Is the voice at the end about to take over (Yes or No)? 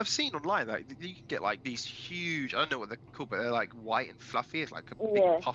No